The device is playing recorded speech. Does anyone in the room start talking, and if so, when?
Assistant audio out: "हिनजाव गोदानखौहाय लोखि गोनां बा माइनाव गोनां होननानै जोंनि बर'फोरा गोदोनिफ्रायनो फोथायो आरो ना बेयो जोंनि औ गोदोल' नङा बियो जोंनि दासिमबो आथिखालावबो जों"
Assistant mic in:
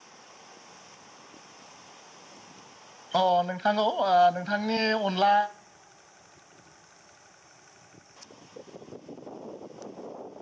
3.2 s

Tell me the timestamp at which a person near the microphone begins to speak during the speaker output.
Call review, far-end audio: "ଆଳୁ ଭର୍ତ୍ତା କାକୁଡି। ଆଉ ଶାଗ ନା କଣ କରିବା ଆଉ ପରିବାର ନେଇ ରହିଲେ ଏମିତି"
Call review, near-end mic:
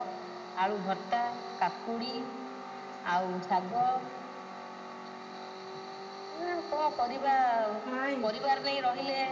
7.8 s

